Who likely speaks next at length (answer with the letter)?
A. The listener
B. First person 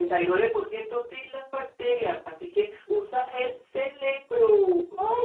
A